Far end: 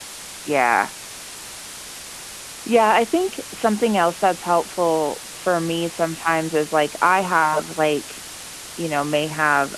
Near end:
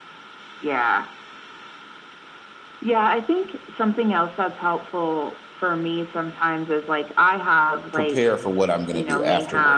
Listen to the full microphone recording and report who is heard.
both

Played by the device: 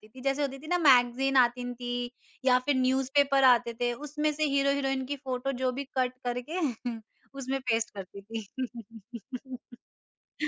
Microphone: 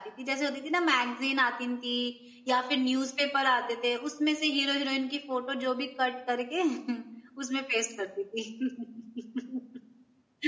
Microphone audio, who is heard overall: echo only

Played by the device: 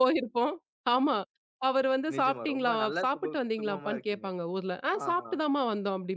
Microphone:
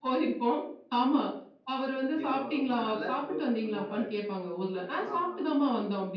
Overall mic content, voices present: echo only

